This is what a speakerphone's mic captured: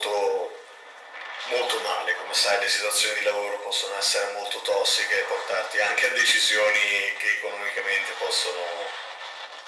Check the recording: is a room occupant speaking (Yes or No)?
No